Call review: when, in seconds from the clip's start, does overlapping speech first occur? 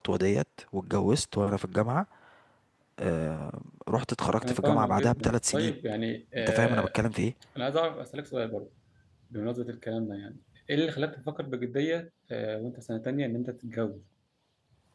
4.4 s

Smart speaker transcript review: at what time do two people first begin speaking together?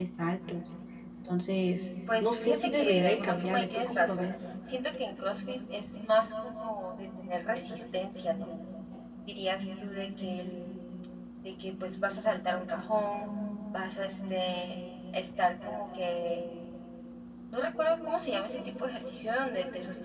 2.1 s

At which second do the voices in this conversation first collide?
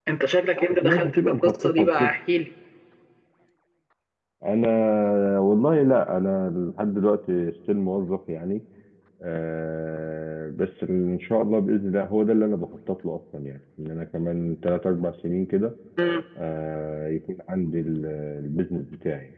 0.7 s

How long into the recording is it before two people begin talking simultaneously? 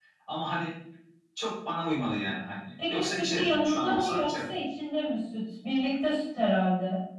2.8 s

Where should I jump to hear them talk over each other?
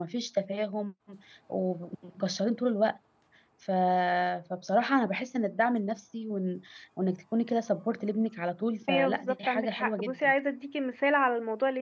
8.9 s

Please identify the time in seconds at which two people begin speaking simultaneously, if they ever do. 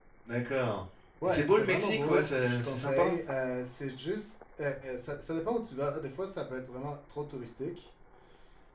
1.2 s

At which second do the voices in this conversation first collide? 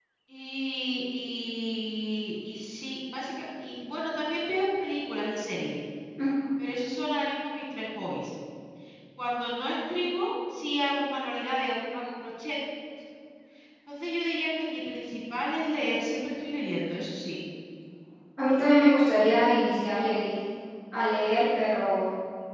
none

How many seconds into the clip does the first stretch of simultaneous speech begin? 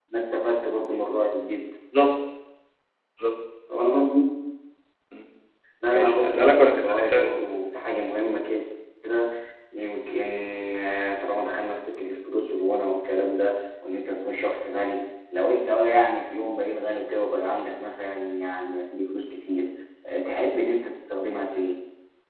5.9 s

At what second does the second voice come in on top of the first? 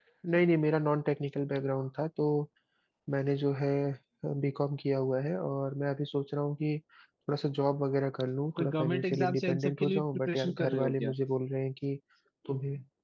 8.6 s

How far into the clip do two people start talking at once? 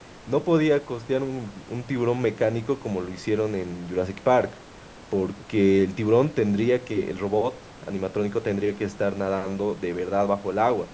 none

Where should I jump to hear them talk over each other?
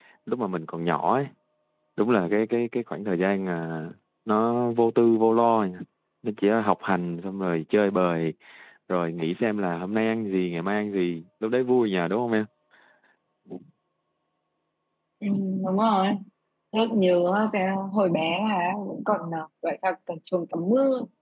none

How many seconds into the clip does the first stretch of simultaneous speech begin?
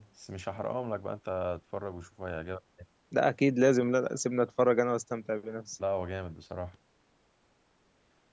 none

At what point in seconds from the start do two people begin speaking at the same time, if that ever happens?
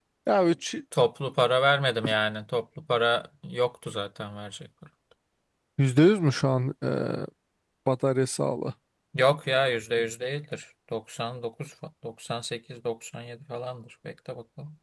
none

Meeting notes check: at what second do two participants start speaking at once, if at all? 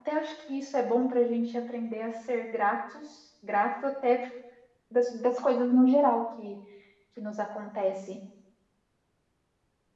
none

